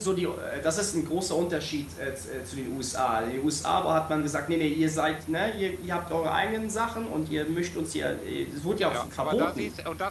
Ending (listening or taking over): taking over